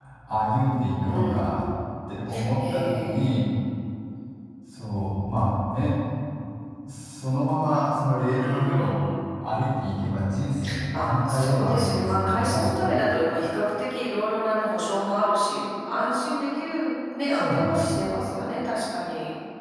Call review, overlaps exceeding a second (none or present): present